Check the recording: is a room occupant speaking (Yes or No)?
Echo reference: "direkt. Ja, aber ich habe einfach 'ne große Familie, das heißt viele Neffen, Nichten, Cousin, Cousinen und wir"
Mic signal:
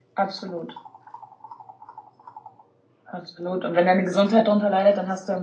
Yes